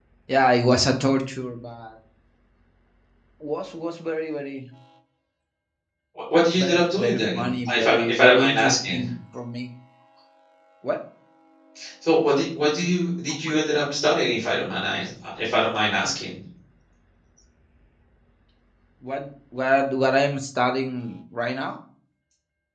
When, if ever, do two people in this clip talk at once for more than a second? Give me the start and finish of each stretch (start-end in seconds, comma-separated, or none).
6.5-9.0